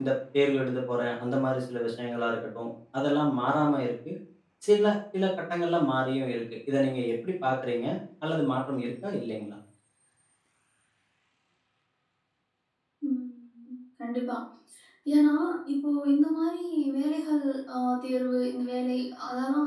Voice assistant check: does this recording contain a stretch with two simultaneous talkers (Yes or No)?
No